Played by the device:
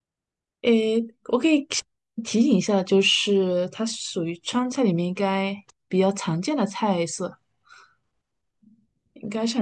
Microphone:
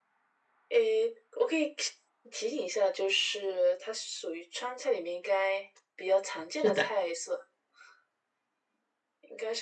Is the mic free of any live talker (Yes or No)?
No